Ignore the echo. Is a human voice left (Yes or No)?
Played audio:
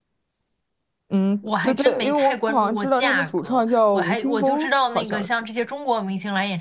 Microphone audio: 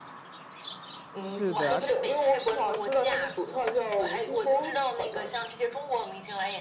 Yes